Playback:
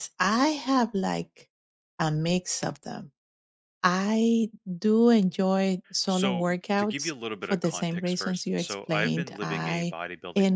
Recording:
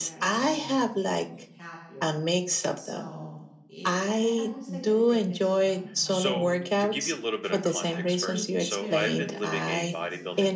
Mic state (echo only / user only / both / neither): both